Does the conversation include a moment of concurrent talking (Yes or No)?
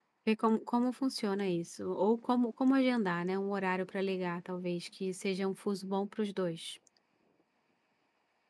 No